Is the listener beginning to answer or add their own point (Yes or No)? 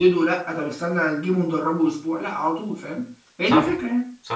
Yes